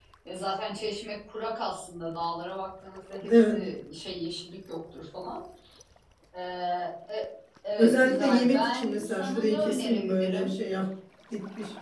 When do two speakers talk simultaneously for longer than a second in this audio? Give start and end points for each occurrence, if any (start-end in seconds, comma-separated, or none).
7.8-10.5